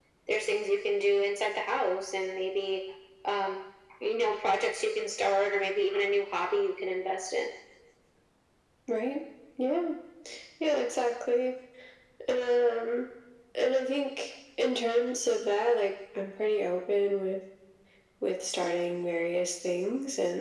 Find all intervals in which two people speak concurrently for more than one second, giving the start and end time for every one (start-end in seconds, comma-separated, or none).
none